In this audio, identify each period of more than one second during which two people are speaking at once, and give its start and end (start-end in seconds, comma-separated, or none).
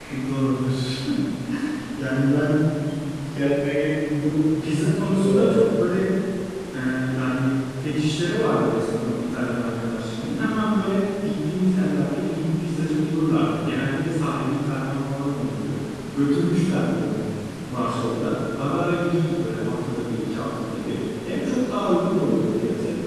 none